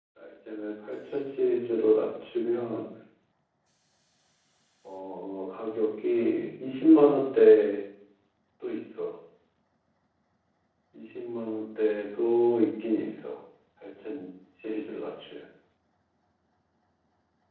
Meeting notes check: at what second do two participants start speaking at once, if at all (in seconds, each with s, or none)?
none